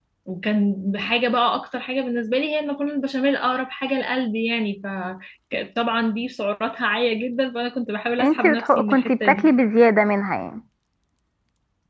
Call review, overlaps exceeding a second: present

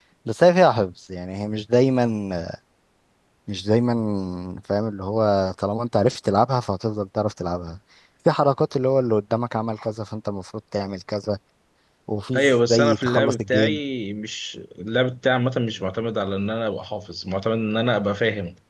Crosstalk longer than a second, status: present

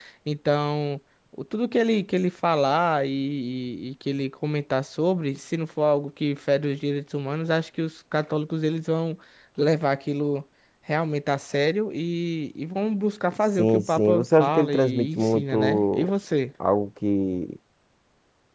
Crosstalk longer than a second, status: present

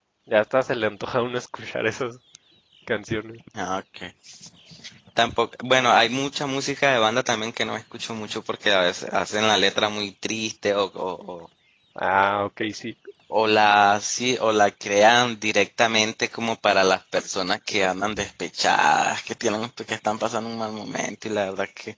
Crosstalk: none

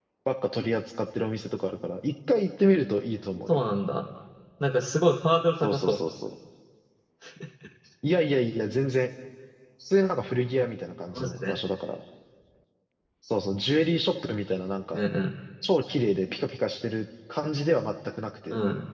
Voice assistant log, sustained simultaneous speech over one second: none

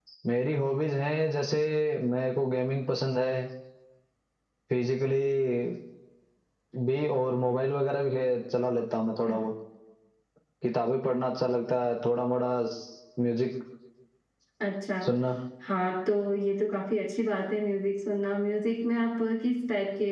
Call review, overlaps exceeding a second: none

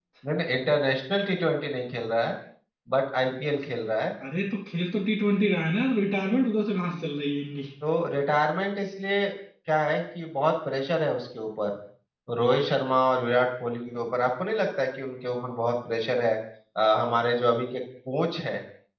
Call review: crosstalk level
none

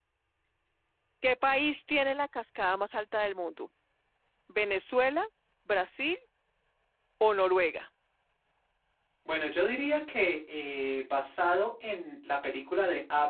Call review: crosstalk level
none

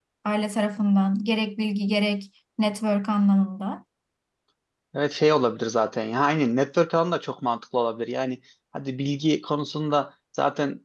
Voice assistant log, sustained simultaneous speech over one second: none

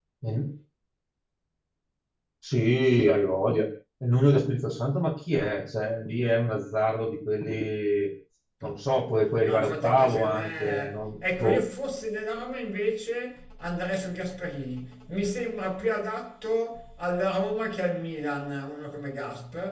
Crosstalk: present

